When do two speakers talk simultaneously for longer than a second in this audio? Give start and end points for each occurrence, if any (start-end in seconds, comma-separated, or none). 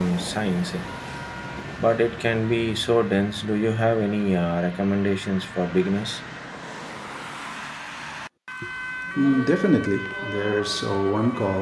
none